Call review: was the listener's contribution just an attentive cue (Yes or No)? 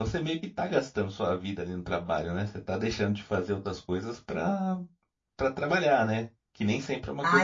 No